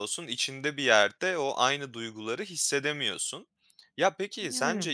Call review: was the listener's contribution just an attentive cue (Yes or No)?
Yes